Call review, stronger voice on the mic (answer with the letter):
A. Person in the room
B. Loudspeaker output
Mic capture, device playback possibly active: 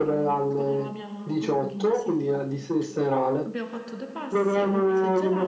B